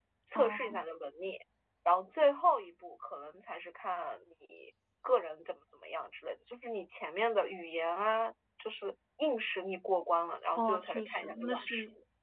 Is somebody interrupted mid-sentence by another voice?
Yes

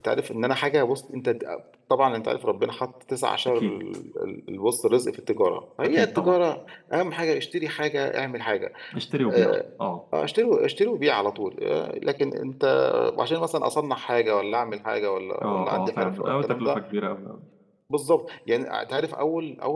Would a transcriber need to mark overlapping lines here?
Yes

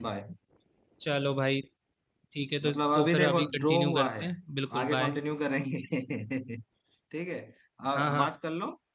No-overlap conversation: No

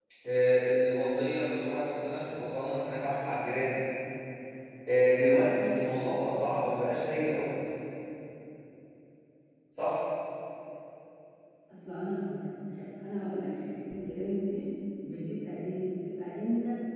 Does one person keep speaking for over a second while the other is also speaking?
No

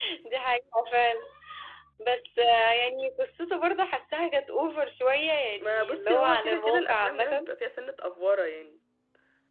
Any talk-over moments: Yes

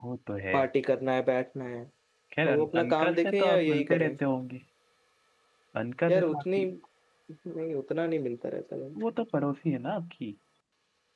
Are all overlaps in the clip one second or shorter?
No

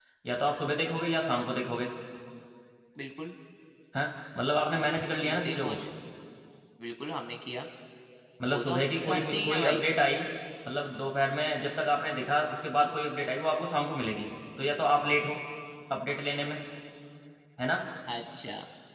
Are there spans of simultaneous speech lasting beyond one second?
Yes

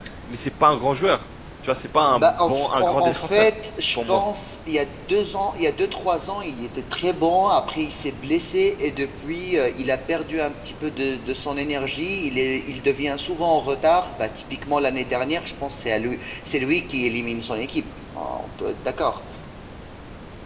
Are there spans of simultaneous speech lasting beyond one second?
Yes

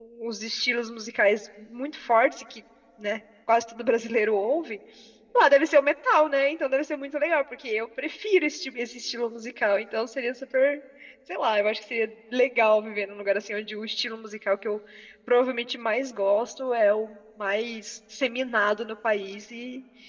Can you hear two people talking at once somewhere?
No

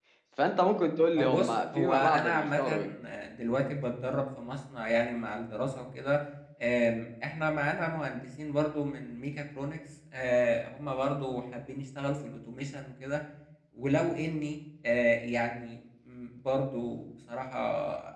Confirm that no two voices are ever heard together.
No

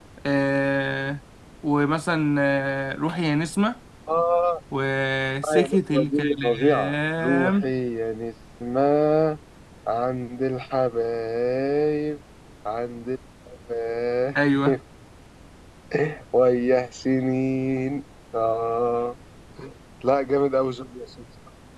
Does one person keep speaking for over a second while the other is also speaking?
Yes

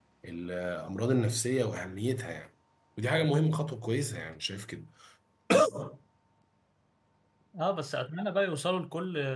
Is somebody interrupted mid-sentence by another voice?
No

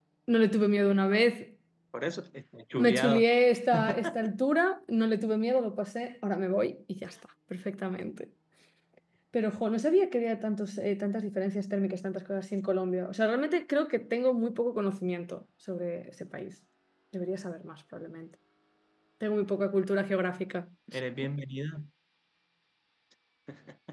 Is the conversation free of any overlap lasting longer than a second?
Yes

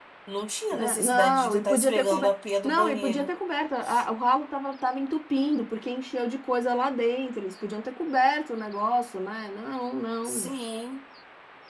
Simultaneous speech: Yes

